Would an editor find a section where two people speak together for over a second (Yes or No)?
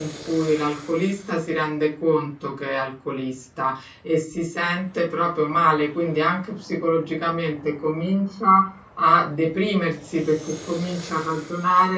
No